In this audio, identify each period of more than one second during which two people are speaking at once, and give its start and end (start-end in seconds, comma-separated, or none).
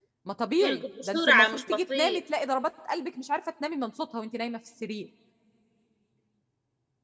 0.6-2.2